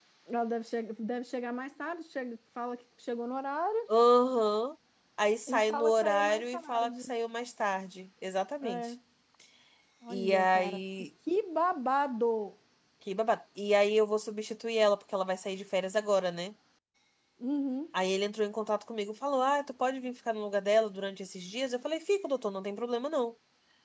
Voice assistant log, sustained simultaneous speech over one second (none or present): present